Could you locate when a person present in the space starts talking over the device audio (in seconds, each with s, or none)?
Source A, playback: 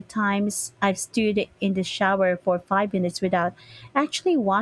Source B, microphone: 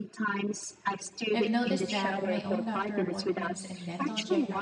1.3 s